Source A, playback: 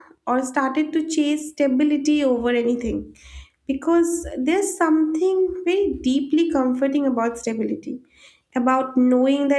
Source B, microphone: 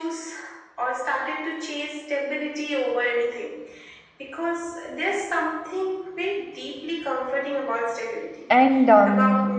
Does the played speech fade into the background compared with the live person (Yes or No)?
Yes